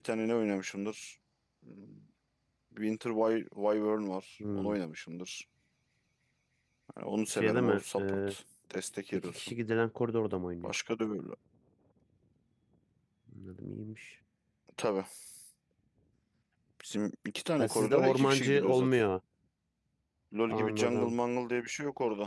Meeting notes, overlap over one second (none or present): present